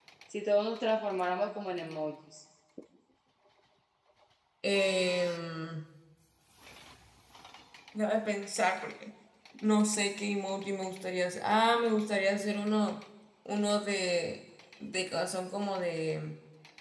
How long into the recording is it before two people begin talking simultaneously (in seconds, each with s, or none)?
none